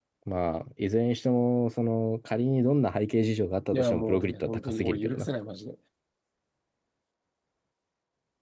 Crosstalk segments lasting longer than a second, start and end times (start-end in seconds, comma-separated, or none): 3.7-5.3